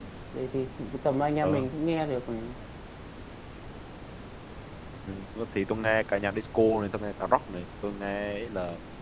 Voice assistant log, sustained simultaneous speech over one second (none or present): none